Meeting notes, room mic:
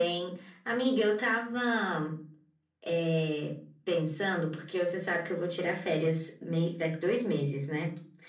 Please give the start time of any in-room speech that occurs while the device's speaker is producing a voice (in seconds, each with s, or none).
none